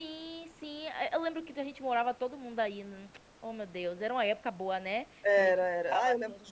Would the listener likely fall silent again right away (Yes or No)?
No